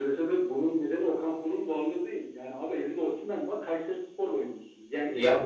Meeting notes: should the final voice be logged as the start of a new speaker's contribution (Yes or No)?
Yes